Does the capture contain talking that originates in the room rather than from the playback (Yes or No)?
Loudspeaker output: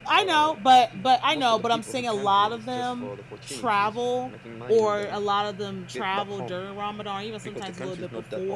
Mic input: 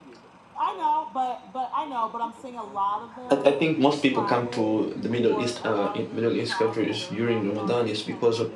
Yes